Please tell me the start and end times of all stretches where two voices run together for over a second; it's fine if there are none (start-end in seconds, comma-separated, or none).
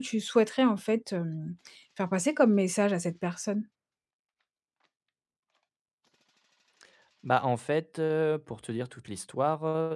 none